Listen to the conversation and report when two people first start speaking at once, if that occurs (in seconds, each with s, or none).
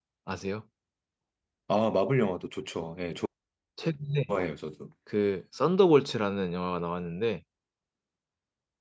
none